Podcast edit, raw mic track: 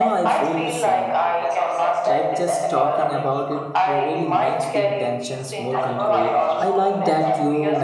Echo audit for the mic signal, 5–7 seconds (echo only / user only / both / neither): both